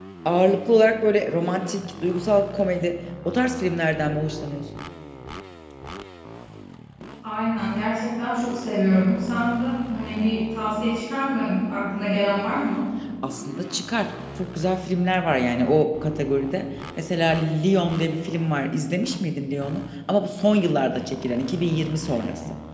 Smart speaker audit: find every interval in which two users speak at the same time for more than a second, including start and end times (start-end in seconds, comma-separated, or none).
none